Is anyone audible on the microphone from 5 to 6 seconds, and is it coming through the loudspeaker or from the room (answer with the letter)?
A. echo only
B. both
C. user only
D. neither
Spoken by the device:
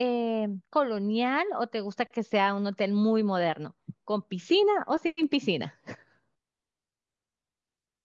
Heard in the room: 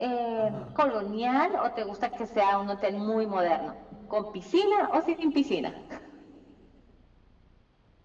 A